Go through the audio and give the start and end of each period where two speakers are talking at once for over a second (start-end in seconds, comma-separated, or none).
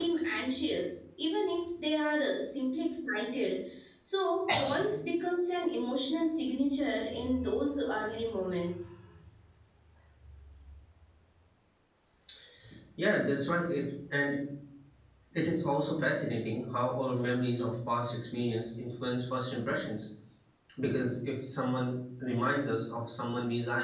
none